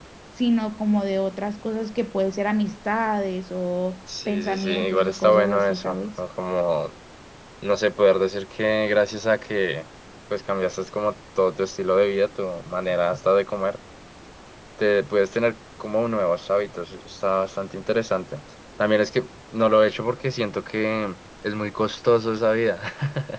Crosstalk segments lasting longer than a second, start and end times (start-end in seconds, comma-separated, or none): 4.3-6.2